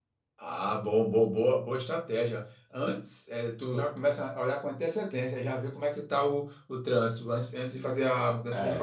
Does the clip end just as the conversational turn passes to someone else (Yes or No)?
Yes